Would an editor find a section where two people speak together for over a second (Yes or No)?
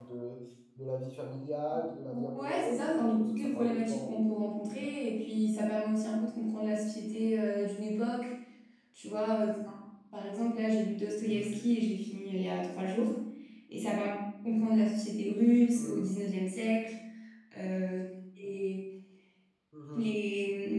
Yes